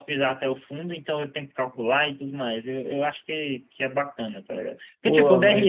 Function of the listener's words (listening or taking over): listening